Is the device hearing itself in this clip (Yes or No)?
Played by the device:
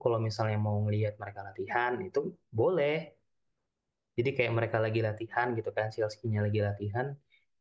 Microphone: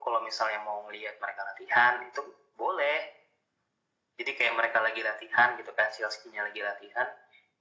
Yes